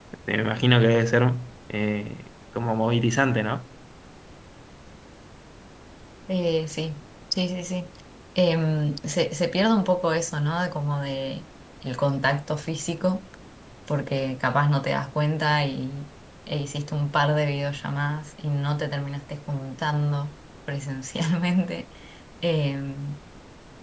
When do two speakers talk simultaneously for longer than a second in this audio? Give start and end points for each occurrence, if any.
none

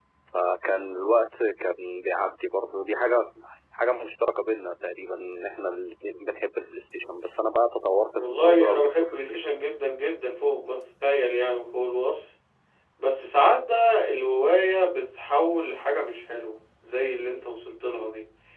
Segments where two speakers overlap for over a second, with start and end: 8.2-9.4

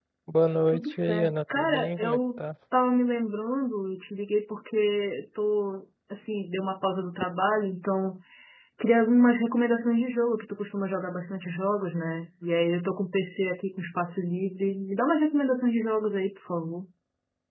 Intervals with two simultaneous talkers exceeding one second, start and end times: 0.7-2.4

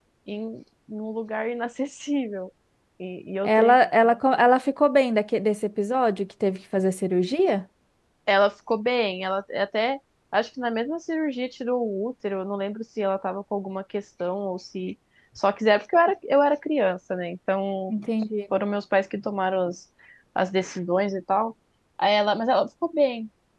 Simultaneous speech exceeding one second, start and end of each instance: none

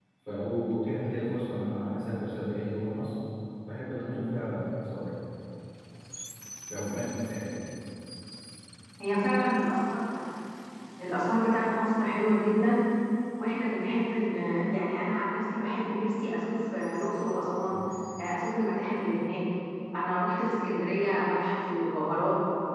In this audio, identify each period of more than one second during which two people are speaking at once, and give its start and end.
none

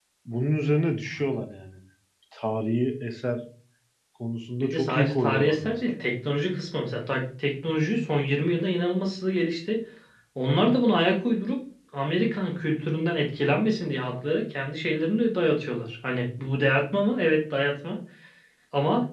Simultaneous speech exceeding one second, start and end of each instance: 4.6-5.9

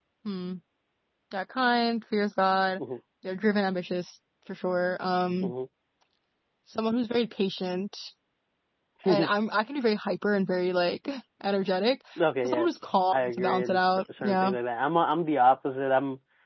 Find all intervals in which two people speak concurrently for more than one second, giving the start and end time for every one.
13.1-14.5

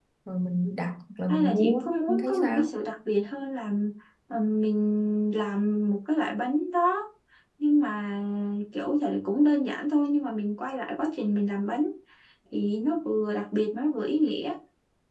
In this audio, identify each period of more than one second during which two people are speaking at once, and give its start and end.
1.3-2.7

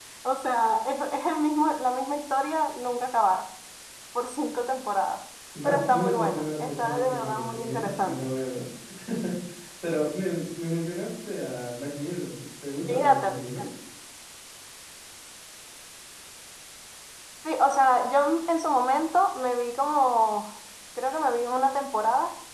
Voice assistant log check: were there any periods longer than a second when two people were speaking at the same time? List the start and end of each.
5.6-8.3

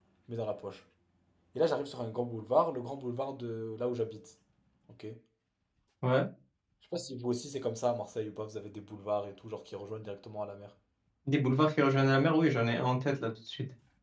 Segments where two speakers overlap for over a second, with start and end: none

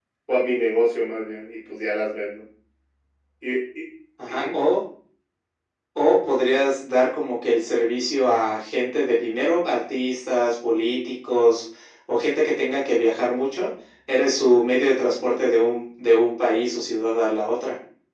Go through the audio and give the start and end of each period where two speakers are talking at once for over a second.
none

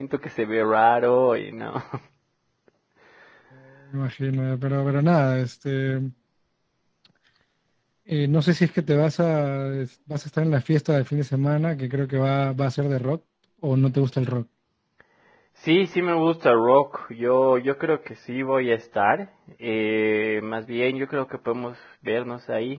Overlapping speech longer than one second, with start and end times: none

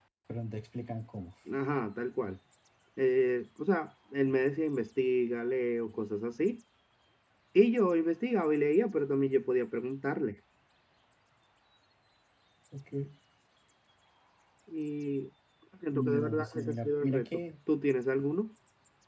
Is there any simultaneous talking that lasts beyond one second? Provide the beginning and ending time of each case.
15.9-17.4

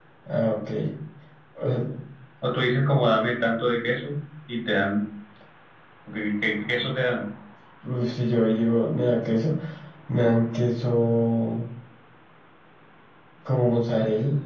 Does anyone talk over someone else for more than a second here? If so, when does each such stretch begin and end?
none

